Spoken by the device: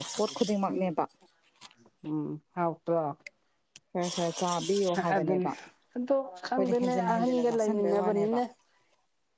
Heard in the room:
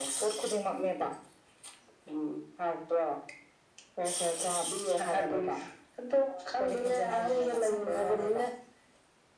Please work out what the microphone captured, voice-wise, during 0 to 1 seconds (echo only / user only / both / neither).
echo only